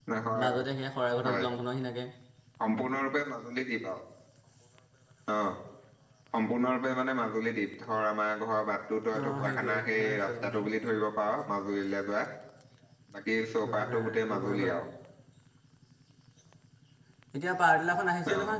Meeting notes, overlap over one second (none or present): present